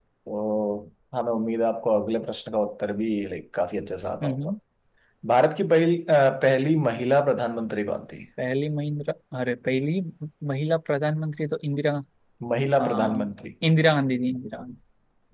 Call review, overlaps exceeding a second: none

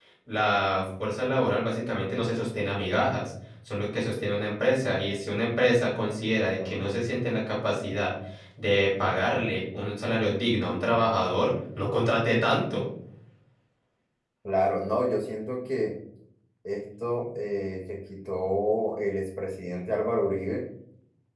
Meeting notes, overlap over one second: none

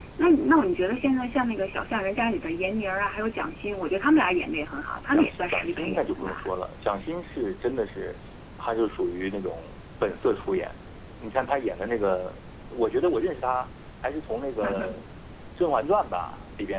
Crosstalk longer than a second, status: present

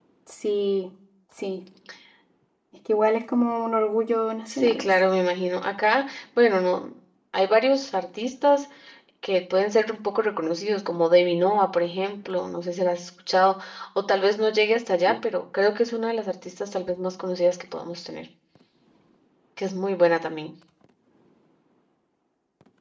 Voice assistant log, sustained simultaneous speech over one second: none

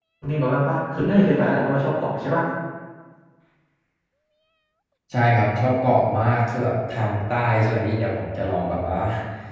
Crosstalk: none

